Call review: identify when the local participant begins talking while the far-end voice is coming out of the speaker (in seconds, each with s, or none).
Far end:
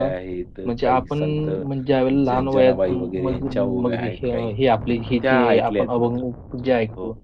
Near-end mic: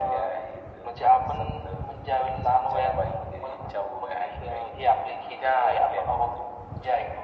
none